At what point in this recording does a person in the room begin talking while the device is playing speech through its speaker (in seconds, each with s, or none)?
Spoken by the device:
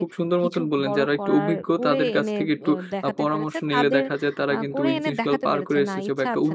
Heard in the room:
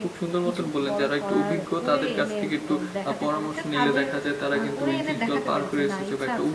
none